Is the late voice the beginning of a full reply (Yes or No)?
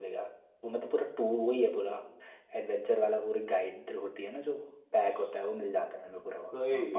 No